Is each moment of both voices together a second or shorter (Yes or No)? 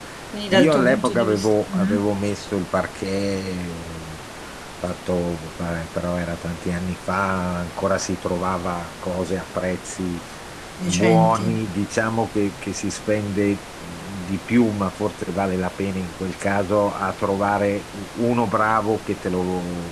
No